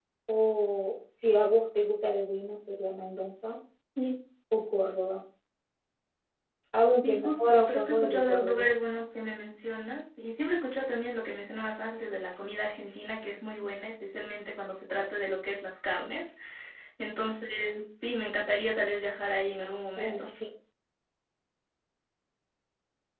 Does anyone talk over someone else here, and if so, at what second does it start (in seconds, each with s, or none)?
7.0 s